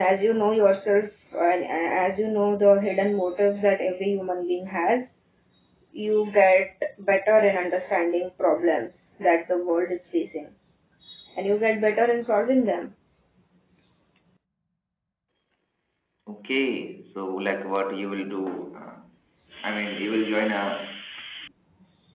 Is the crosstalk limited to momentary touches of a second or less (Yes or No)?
Yes